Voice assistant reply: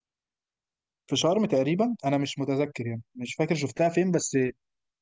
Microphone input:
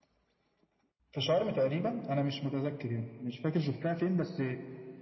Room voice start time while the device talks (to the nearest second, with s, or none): none